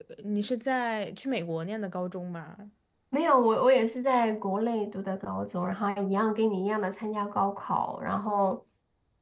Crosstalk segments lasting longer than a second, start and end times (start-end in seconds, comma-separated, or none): none